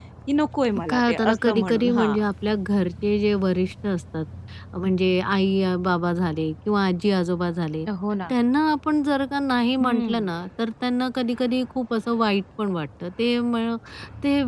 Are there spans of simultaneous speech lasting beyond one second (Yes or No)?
Yes